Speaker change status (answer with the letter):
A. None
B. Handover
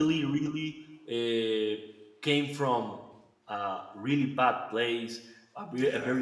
A